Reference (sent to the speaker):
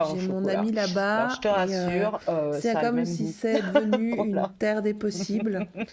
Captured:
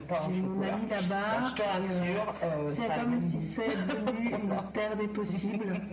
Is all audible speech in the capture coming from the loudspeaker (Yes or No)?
Yes